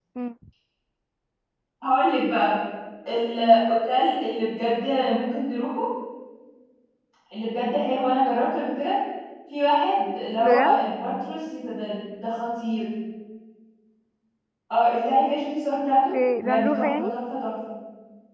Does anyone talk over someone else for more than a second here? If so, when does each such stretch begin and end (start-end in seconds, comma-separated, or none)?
15.9-17.1